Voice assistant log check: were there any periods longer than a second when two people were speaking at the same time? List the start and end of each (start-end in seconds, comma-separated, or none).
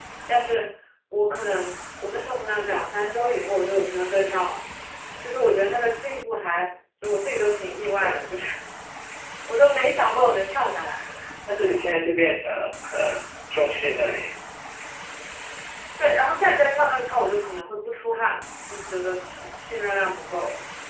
none